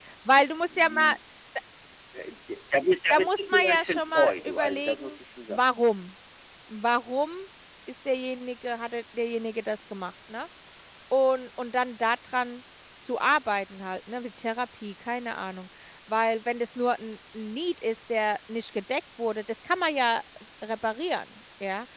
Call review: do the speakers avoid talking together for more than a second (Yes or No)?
No